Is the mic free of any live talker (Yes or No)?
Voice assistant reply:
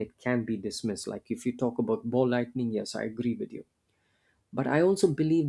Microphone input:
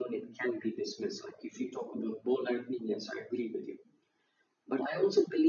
Yes